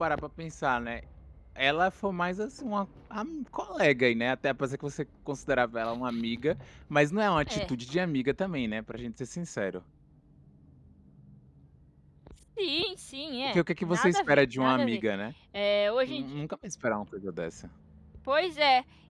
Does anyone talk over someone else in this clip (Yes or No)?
Yes